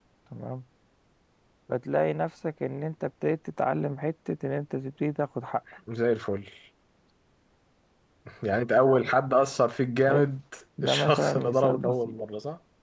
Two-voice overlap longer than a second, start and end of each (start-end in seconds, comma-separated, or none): 10.8-12.2